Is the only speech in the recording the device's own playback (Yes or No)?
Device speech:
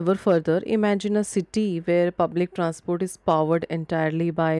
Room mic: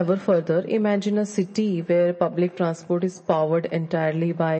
Yes